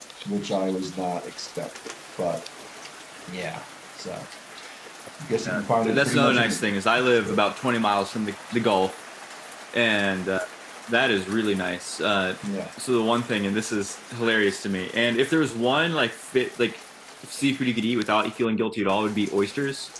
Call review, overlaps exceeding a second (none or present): present